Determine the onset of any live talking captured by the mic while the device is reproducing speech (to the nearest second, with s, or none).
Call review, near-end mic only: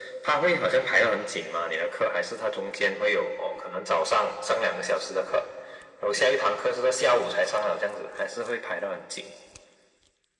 none